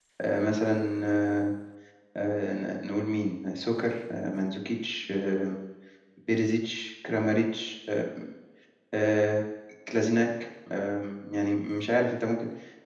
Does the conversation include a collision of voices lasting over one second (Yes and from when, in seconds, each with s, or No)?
No